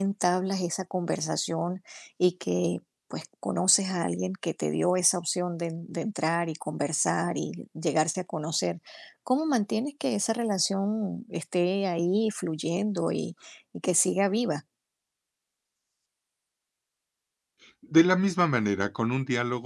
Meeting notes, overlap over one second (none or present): none